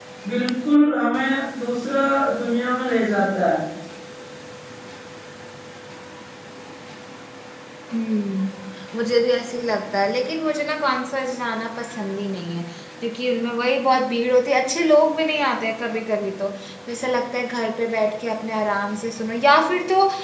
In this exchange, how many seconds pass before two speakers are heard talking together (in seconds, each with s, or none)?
none